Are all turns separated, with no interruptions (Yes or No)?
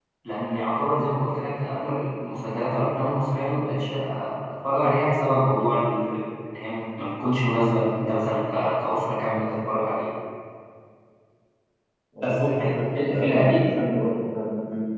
No